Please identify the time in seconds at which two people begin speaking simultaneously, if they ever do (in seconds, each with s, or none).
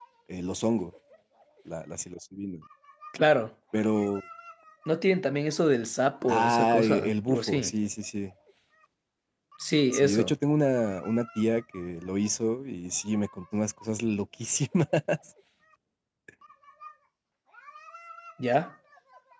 6.3 s